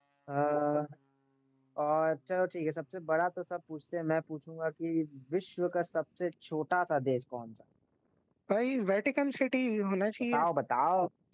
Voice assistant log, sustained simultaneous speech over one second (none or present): none